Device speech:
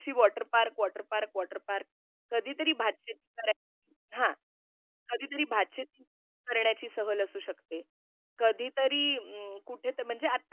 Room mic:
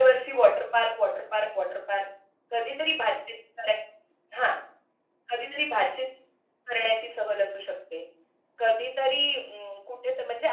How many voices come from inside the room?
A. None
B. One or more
A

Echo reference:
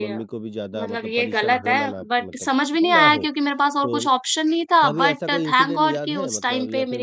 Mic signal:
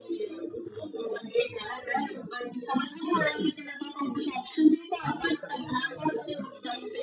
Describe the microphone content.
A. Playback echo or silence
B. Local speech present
A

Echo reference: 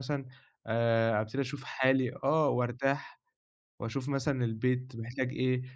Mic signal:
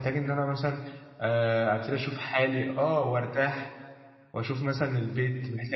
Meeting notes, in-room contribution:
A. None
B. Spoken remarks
A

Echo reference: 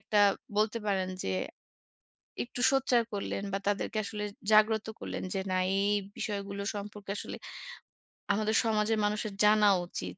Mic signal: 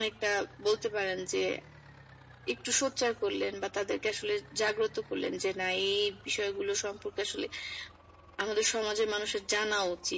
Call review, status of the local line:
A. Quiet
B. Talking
A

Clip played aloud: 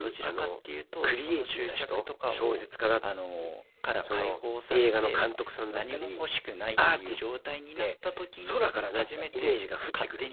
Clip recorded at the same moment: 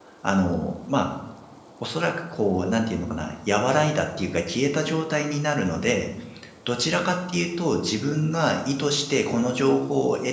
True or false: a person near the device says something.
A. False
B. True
B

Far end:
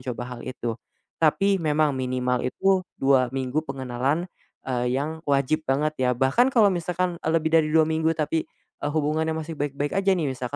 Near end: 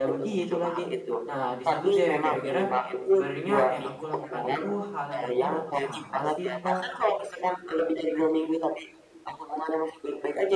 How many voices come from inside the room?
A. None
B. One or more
B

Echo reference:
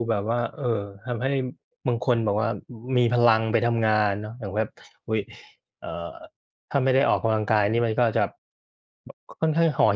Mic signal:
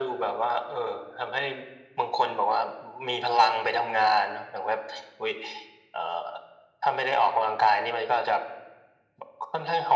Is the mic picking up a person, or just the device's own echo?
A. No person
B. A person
A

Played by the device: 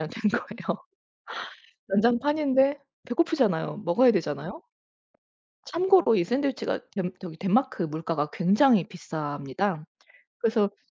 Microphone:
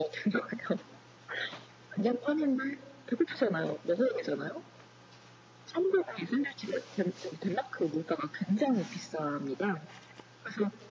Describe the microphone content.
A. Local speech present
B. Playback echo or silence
B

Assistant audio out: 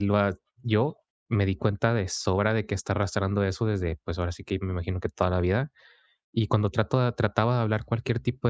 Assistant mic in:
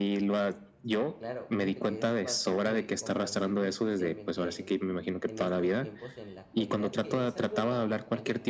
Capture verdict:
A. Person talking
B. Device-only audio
A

